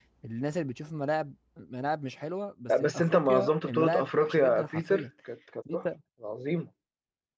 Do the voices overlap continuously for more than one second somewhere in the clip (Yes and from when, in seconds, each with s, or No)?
Yes, from 2.7 s